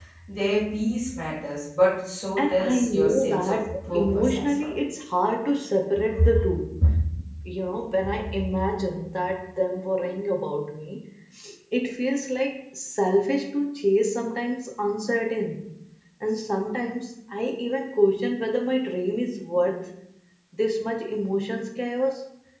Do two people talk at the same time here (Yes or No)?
Yes